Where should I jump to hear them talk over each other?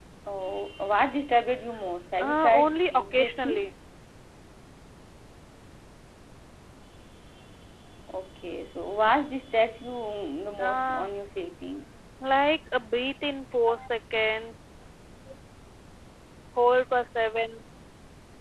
2.2 s

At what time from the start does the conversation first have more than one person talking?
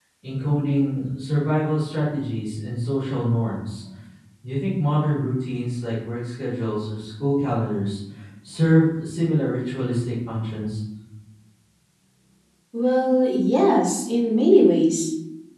none

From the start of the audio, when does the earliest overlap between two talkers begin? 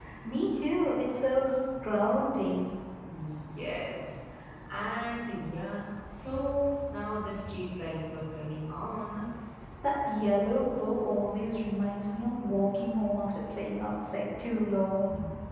none

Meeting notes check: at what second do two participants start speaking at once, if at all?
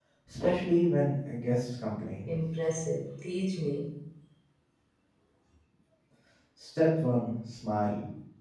none

